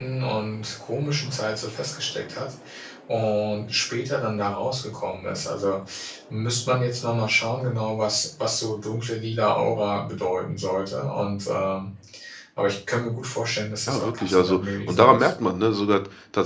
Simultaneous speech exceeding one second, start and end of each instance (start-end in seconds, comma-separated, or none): 13.9-15.3